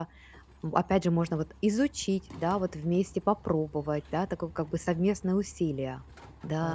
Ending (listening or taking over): taking over